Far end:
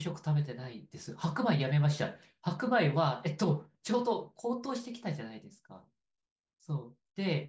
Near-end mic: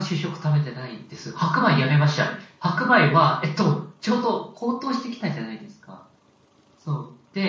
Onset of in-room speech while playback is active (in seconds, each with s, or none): none